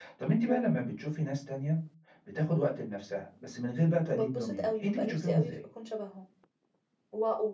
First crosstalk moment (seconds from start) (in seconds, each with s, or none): 4.1 s